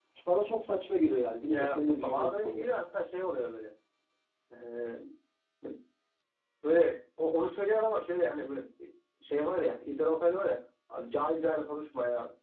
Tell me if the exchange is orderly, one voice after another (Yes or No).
No